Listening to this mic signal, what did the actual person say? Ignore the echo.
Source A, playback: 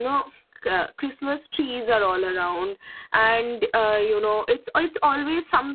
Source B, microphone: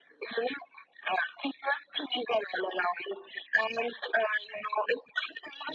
none

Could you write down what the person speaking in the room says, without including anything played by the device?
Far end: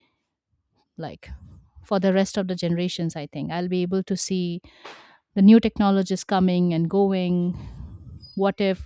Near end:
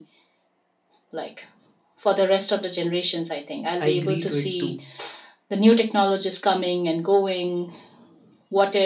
I agree to it too.

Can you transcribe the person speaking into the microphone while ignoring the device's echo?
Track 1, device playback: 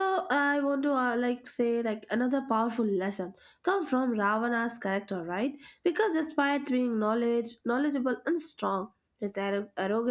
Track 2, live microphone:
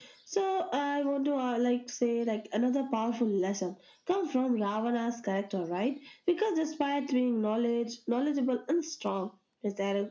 none

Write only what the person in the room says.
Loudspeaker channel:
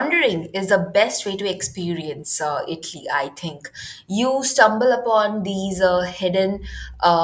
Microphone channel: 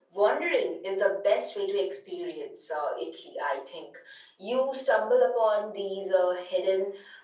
none

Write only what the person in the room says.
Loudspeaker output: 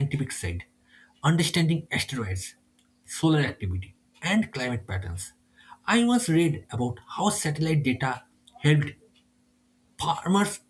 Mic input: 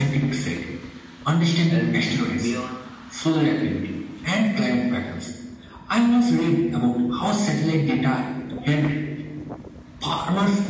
And beyond

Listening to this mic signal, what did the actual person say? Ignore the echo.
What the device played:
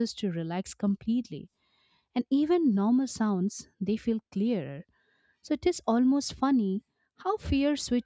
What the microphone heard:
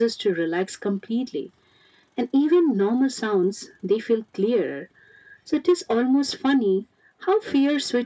none

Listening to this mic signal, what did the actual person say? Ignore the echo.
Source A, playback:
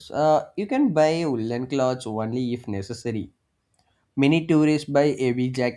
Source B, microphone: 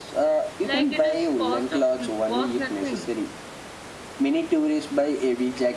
like it is cost of cost nothing.

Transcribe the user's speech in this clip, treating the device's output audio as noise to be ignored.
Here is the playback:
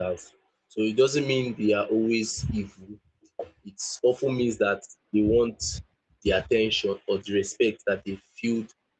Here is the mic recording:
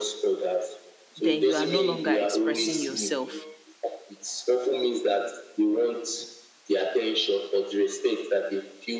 then you are no longer expressing yourself

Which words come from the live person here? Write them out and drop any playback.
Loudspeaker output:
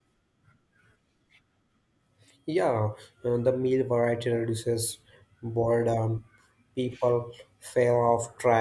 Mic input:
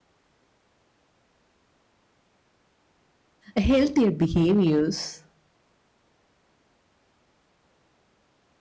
healthier behaviors.

